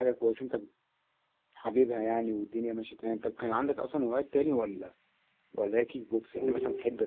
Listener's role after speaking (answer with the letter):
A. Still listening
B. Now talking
A